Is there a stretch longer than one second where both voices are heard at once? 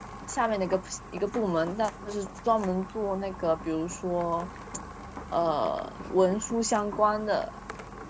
No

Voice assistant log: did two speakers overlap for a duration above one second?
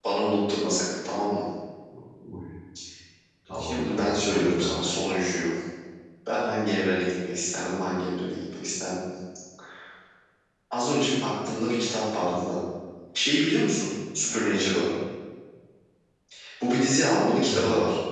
Yes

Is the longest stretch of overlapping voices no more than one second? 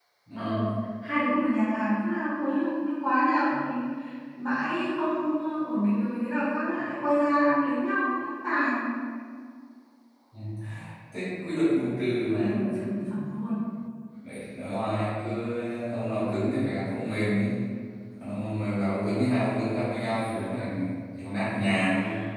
Yes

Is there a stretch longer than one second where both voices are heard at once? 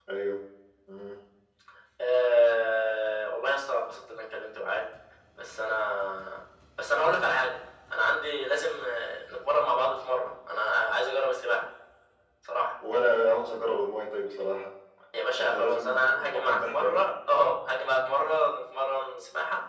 Yes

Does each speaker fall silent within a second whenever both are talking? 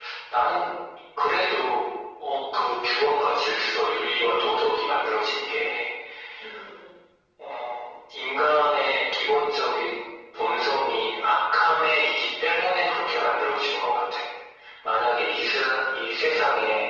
No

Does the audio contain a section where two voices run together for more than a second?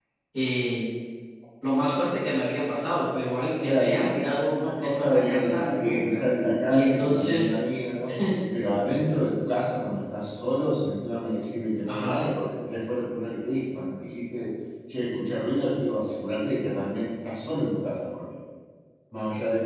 Yes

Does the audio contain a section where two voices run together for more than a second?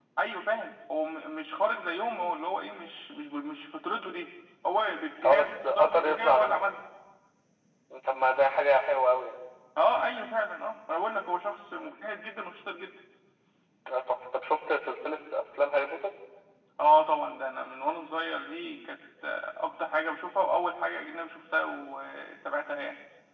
Yes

